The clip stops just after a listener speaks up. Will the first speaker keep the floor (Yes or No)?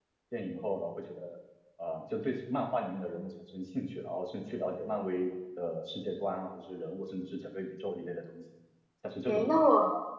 No